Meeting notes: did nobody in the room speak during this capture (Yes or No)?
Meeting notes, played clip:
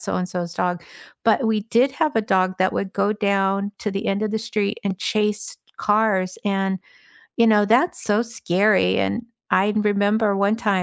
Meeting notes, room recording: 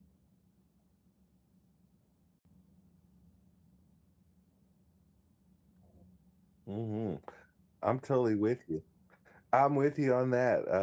No